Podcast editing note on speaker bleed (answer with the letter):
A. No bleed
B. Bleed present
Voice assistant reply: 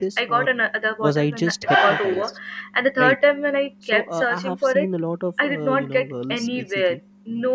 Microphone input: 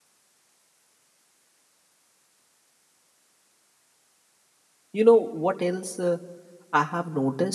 A